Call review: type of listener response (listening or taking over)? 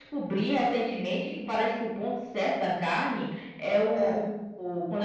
listening